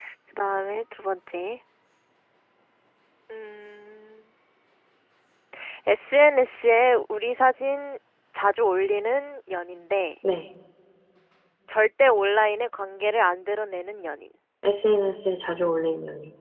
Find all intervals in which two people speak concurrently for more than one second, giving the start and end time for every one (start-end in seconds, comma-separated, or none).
none